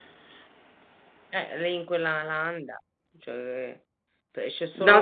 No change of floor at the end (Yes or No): No